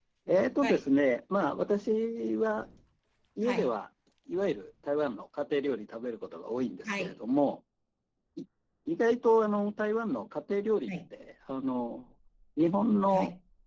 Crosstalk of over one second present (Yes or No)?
No